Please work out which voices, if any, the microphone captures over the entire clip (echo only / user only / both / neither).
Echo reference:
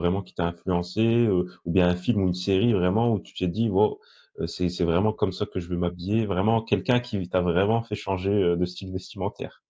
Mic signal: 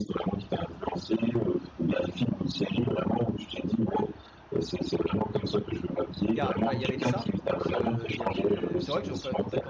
both